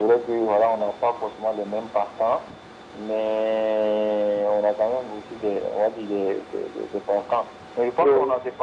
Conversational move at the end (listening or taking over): listening